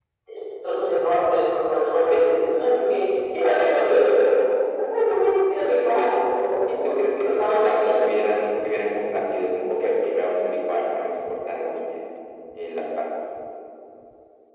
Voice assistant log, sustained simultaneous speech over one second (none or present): present